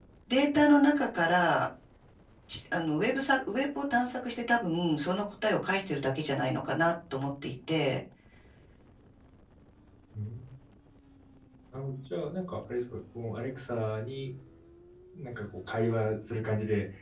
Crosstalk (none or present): none